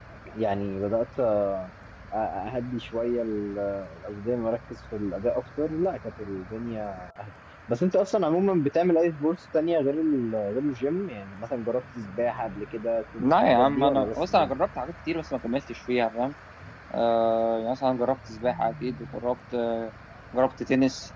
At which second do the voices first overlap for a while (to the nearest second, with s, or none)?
13 s